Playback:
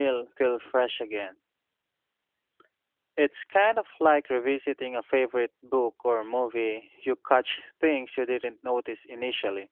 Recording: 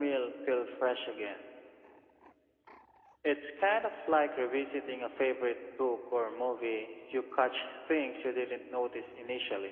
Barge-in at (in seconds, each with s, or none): none